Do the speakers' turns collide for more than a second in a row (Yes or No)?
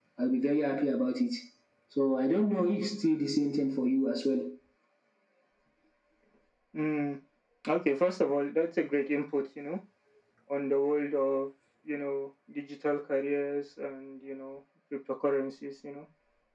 No